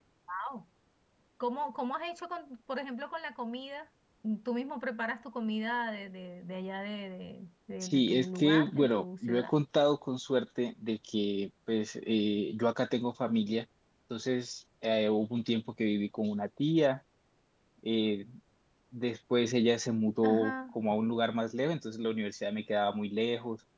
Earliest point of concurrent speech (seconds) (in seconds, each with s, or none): 7.8 s